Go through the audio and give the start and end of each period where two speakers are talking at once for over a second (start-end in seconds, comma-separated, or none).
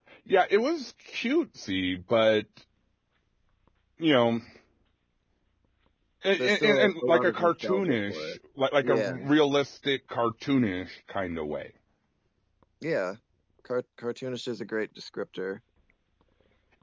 6.4-8.4